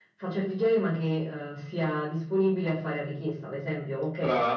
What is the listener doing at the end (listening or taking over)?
taking over